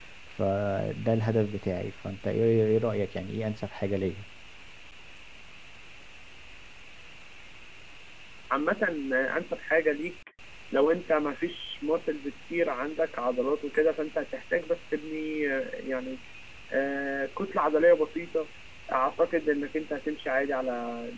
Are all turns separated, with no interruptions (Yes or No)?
Yes